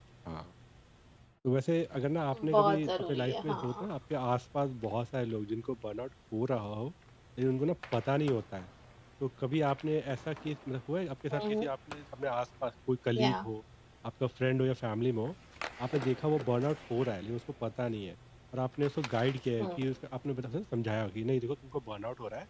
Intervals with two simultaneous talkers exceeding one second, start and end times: 2.5-3.9

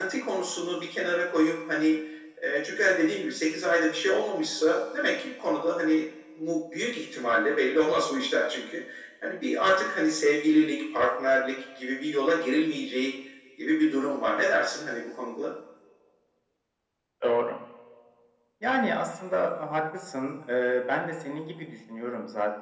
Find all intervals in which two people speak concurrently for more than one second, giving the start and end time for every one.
none

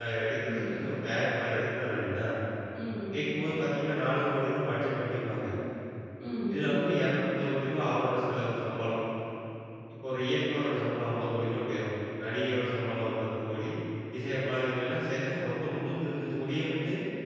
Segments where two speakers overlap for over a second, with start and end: none

